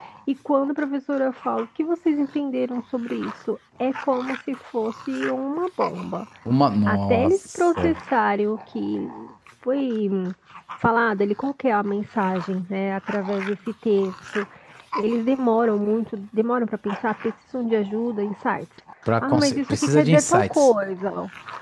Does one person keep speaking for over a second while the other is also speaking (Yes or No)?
Yes